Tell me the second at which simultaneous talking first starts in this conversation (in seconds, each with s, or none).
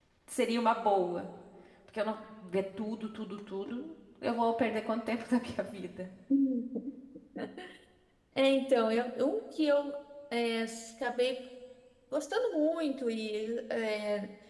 none